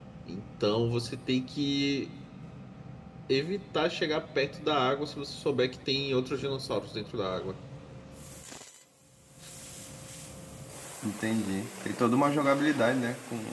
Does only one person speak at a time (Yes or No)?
Yes